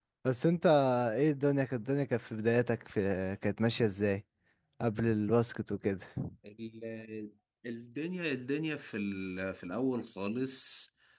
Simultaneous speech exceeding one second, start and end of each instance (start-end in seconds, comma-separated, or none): none